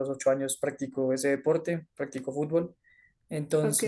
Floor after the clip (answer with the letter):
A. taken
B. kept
B